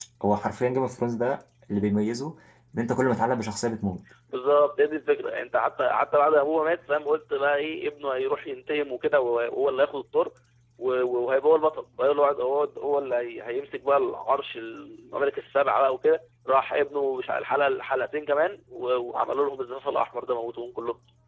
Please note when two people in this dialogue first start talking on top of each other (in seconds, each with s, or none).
none